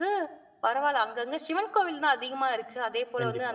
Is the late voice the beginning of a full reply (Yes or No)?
No